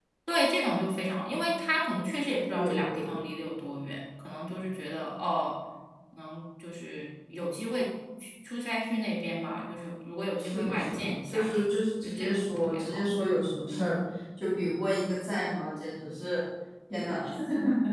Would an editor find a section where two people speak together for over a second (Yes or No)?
Yes